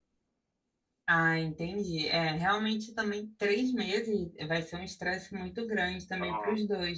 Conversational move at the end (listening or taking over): listening